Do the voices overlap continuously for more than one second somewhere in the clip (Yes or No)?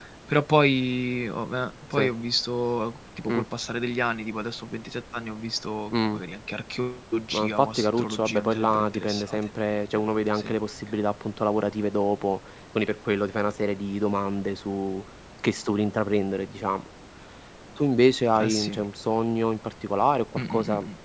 Yes